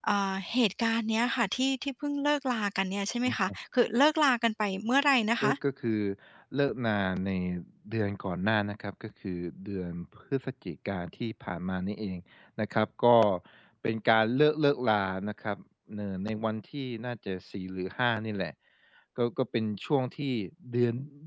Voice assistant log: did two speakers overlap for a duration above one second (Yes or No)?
No